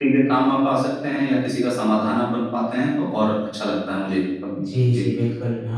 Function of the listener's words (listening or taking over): taking over